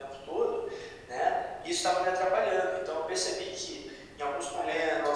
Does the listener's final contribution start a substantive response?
No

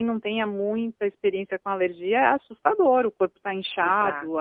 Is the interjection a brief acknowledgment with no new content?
Yes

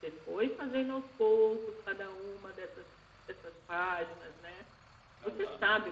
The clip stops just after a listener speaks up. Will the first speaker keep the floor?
Yes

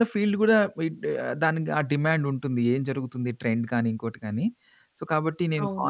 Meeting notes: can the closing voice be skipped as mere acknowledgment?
Yes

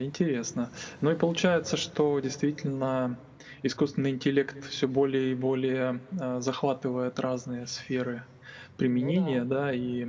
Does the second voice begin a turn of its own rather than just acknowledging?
No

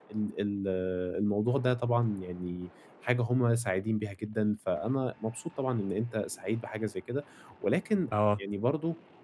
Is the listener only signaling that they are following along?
Yes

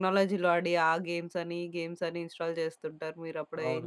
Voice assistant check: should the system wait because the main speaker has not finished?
No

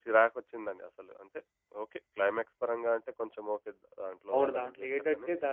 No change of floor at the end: No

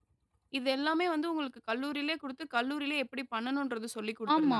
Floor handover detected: Yes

